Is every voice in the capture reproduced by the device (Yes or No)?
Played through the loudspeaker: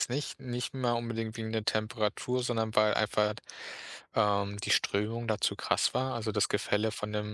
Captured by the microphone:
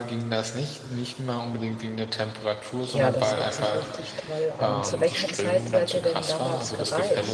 No